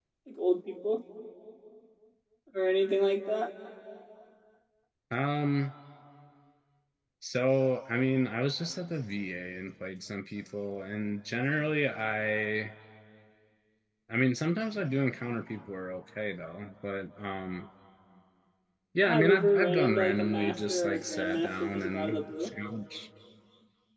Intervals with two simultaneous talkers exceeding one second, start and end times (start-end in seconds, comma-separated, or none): 19.0-22.5